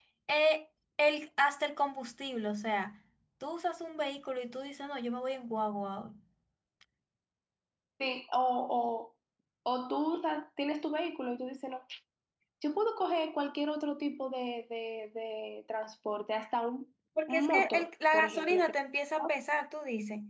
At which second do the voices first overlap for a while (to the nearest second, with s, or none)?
17 s